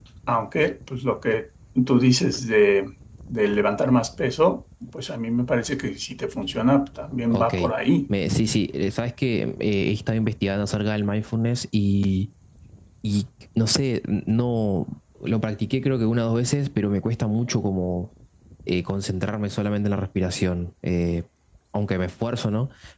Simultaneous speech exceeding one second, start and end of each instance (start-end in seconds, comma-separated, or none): none